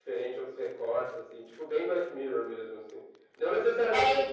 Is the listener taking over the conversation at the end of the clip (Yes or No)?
No